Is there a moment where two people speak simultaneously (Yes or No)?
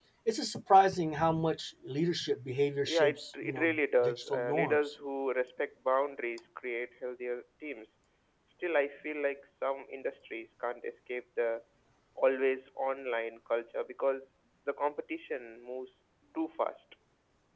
Yes